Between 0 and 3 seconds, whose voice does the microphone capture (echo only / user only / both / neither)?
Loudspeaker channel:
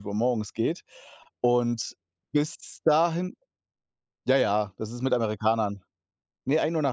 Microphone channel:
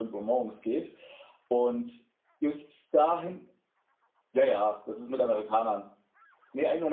echo only